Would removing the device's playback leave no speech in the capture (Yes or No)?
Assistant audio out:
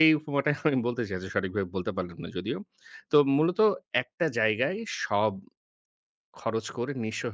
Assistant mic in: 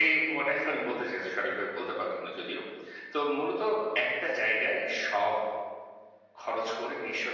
Yes